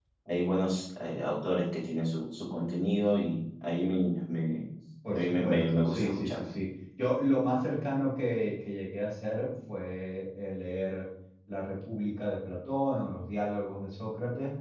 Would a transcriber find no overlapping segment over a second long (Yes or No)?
No